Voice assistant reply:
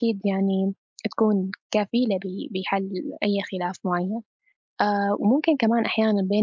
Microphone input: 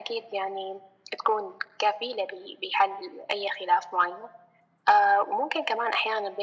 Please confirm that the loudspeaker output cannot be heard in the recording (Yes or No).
No